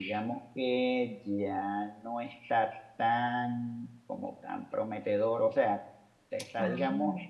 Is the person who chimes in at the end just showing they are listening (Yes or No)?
Yes